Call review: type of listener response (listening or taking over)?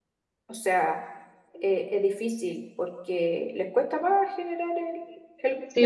taking over